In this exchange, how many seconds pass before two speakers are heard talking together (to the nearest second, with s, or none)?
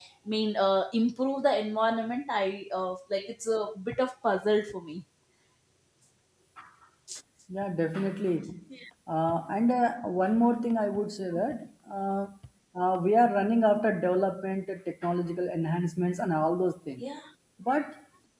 none